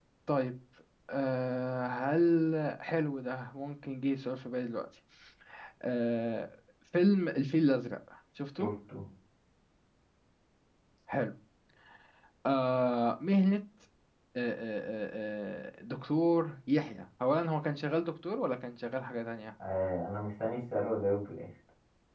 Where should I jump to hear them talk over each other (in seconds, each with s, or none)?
none